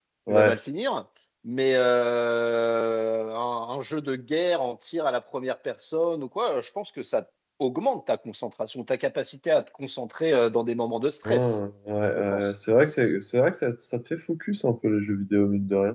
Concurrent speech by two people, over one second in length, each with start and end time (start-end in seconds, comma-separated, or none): none